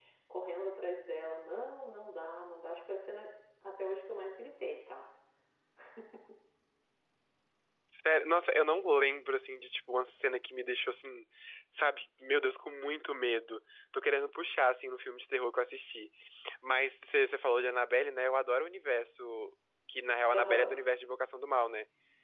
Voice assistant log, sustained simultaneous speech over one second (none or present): none